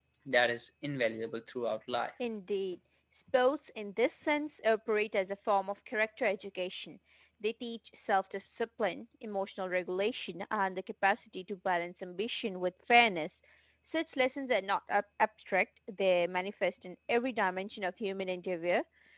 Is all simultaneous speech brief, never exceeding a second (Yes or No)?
Yes